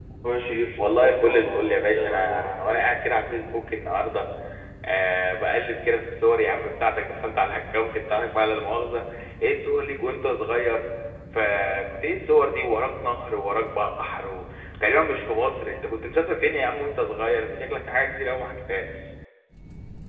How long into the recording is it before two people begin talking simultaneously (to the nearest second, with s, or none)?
1 s